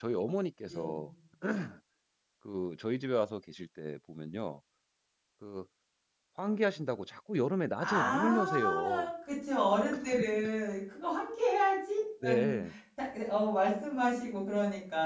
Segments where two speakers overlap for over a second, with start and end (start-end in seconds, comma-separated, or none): 7.8-9.1